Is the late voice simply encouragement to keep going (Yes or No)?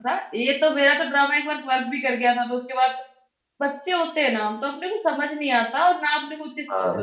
Yes